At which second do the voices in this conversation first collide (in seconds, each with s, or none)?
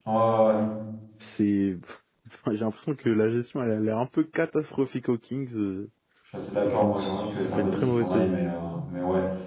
6.6 s